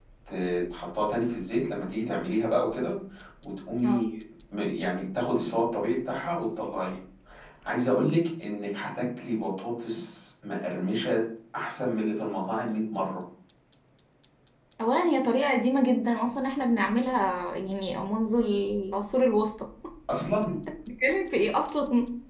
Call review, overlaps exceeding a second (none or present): none